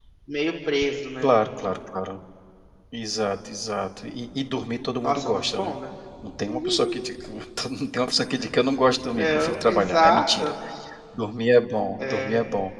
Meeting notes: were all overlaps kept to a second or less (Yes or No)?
No